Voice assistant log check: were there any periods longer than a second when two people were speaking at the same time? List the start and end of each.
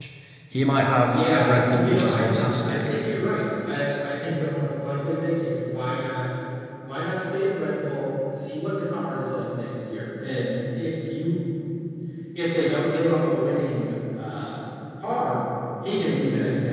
1.1-2.8

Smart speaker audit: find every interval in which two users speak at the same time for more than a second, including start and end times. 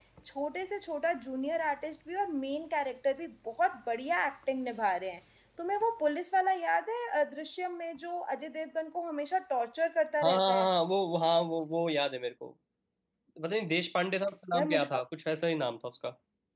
none

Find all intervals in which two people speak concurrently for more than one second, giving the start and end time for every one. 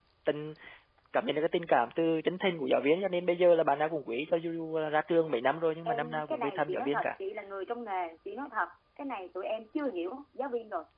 5.8-7.1

